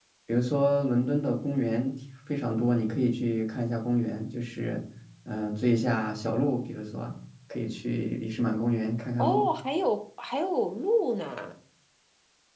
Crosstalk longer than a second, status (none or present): none